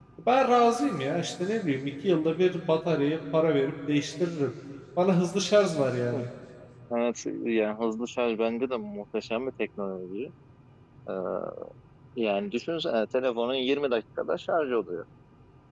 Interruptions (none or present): none